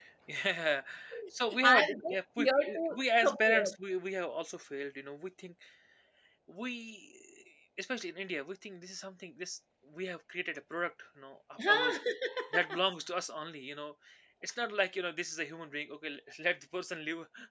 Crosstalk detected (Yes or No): Yes